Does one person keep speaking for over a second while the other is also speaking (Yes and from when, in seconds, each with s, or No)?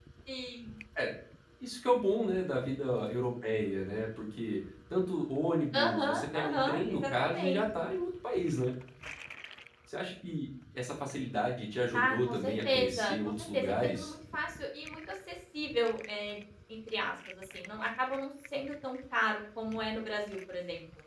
Yes, from 5.7 s